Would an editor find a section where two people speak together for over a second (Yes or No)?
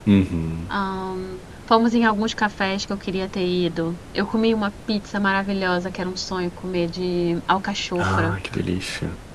No